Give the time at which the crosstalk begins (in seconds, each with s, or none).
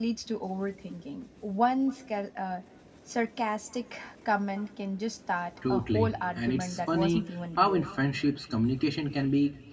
5.6 s